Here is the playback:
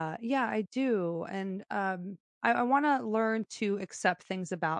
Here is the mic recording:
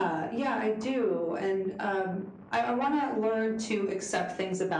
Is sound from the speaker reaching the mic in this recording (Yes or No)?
Yes